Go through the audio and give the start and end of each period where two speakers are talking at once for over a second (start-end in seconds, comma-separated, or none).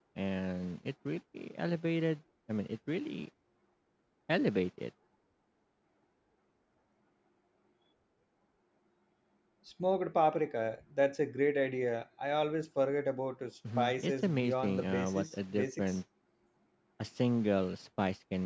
13.8-16.0